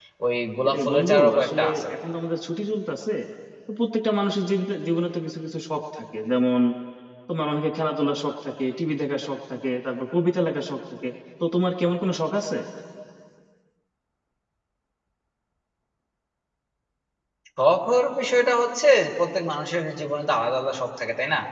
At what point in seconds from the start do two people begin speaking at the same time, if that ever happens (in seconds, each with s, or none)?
0.6 s